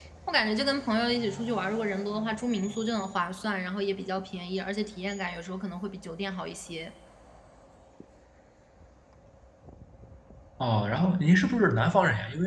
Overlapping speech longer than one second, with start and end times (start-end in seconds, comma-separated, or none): none